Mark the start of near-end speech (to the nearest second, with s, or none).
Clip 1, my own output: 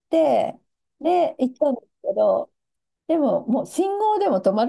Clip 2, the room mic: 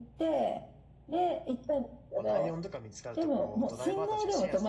2 s